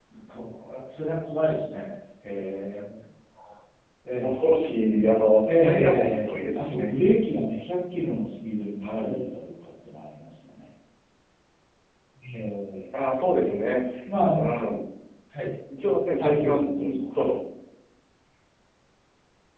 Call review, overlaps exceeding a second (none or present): present